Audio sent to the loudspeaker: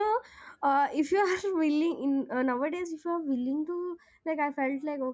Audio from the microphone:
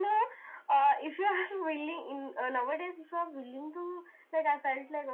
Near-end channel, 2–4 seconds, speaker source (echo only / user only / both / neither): echo only